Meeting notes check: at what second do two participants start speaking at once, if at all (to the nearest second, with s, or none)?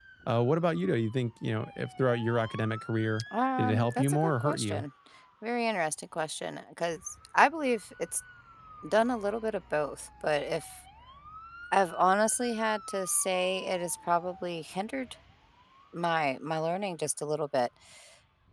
4 s